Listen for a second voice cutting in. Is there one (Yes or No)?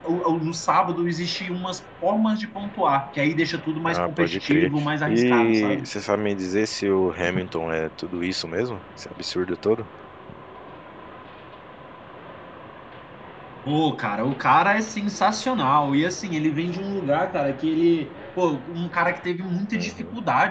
Yes